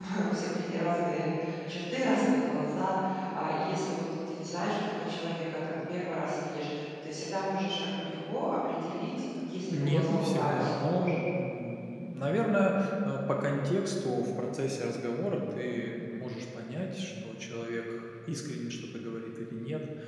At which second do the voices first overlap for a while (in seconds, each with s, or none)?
9.7 s